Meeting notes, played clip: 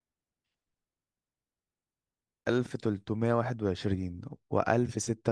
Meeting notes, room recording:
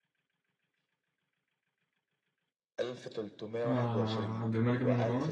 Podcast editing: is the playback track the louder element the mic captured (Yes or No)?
No